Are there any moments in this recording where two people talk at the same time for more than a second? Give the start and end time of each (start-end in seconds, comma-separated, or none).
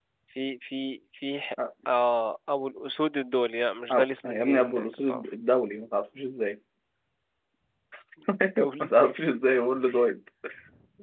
3.9-5.2